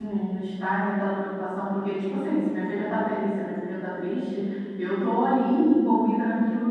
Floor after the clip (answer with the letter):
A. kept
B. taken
A